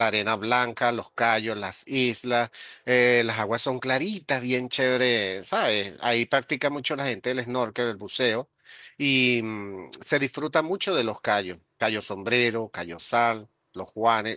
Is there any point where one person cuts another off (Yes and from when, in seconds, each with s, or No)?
No